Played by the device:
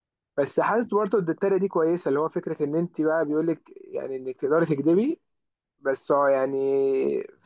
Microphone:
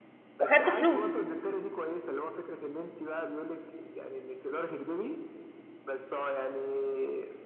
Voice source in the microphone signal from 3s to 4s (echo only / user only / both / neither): echo only